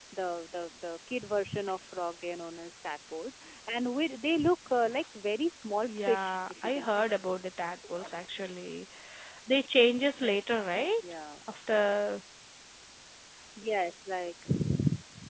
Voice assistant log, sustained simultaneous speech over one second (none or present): present